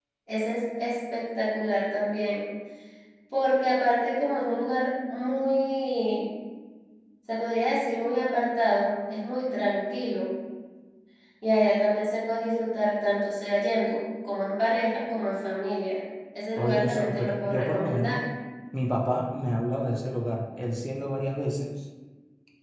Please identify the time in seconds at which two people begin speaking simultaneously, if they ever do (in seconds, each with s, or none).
16.6 s